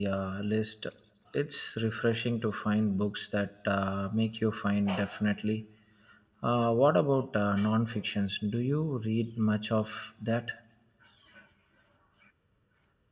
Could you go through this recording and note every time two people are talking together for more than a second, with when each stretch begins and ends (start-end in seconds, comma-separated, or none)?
none